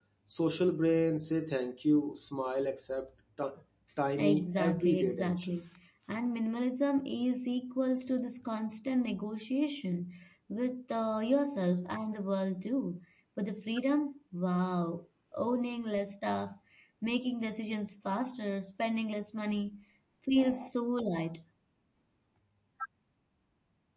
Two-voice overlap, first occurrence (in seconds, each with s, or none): 4.2 s